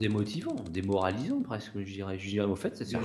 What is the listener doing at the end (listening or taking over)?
taking over